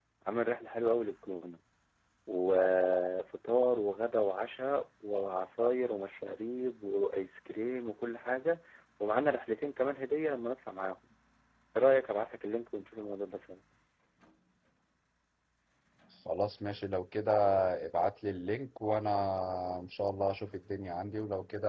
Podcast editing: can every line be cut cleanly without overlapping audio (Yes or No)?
Yes